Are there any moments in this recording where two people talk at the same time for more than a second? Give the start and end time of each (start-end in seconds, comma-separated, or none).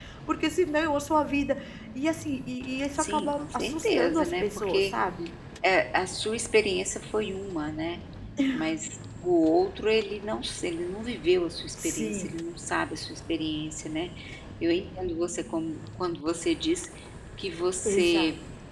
3.0-4.9